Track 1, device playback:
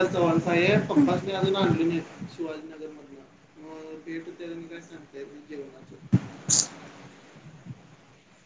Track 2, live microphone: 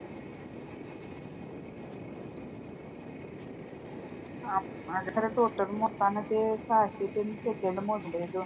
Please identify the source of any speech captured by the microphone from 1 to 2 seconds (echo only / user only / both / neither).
neither